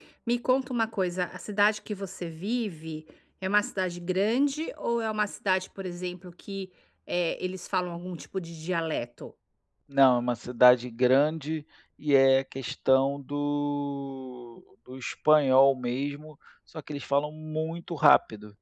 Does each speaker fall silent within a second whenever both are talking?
Yes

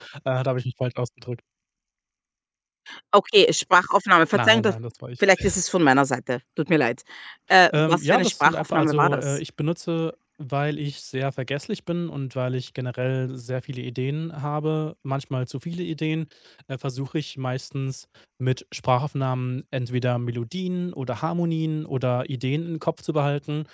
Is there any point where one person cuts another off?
Yes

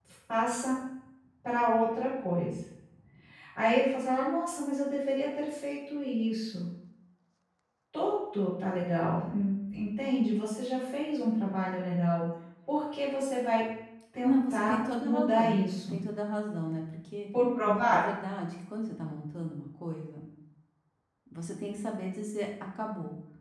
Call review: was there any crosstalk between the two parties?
Yes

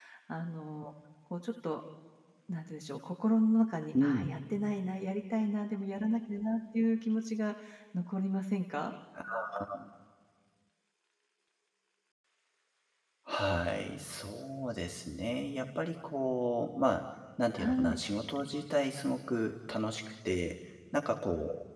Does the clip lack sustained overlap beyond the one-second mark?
Yes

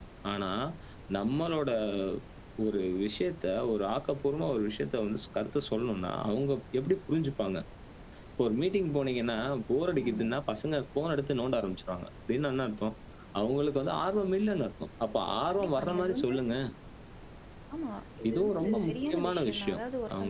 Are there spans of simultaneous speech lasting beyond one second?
Yes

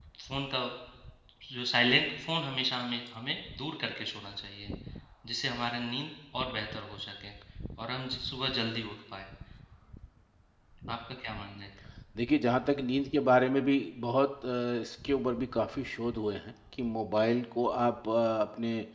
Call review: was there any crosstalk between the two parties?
No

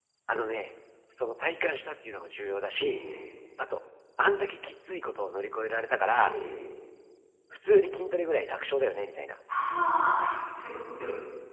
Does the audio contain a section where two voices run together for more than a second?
No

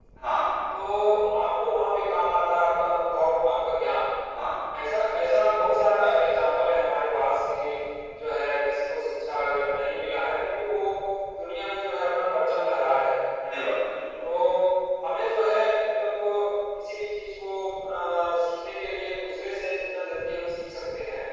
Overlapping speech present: No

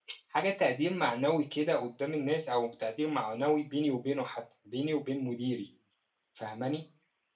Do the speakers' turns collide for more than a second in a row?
No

